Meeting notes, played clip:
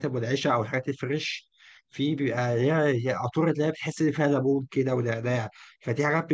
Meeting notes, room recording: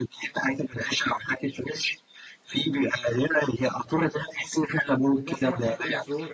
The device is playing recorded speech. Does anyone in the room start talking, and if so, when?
5 s

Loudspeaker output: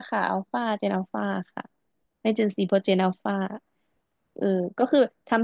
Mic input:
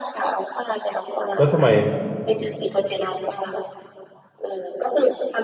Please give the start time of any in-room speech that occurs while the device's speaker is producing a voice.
1 s

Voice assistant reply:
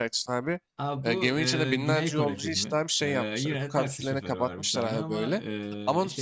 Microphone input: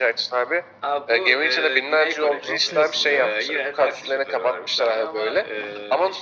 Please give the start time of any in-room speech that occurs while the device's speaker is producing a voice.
2 s

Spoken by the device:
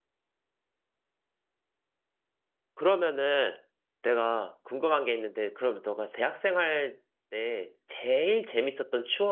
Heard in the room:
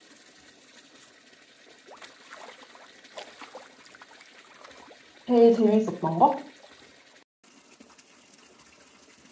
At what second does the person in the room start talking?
5 s

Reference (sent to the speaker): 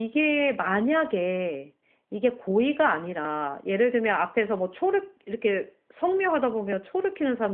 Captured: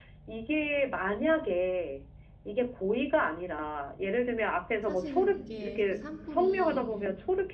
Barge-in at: 5 s

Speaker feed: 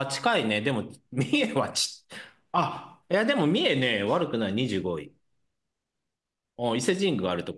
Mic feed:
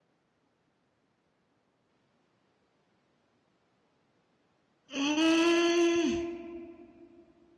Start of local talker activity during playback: 5 s

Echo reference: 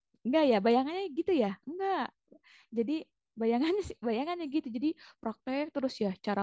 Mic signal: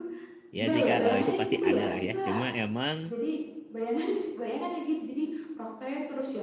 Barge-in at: 1 s

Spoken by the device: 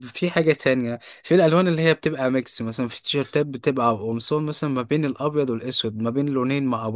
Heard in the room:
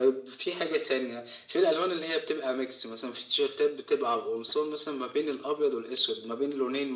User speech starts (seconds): none

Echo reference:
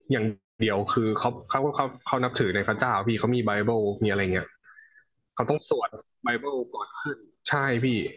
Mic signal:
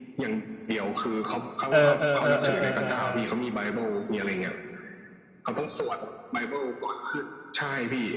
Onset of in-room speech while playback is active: 2 s

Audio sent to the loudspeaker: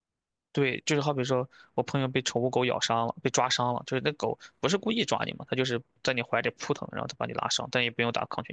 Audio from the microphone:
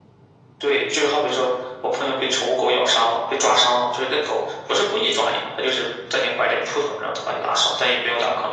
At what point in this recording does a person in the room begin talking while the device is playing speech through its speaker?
none

